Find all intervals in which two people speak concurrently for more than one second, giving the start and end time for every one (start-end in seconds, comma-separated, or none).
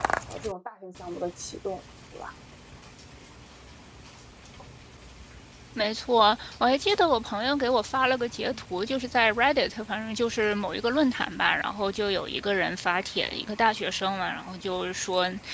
none